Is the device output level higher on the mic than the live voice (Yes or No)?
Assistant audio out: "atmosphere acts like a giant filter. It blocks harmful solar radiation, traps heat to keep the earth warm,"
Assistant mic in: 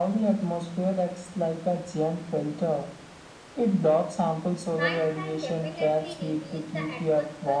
Yes